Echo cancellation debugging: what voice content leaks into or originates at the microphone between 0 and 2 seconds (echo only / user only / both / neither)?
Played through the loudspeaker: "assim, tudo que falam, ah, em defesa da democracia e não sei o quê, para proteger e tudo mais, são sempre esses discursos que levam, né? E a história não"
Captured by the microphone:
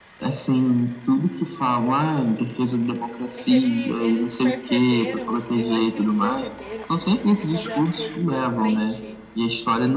echo only